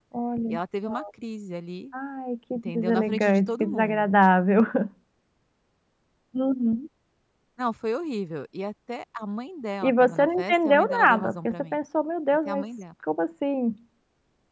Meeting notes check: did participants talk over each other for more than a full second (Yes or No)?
Yes